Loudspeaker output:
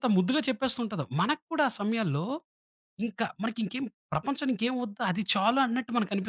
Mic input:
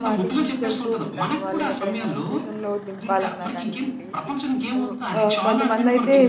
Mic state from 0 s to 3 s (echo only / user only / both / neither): both